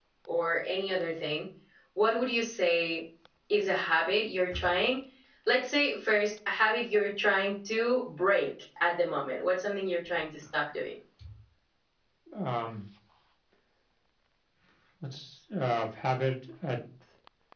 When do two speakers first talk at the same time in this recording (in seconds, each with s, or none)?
none